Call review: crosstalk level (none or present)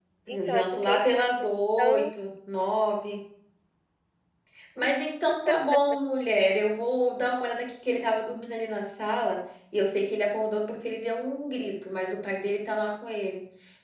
present